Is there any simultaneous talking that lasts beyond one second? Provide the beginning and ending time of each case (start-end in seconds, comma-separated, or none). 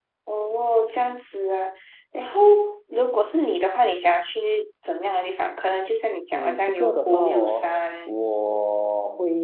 6.3-8.1